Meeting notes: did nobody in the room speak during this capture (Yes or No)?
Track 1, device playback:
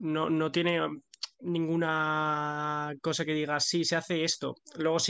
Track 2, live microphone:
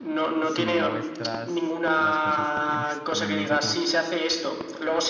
No